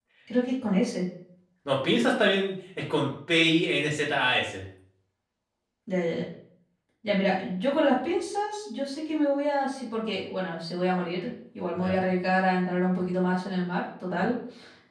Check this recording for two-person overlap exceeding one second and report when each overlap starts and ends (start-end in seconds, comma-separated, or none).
none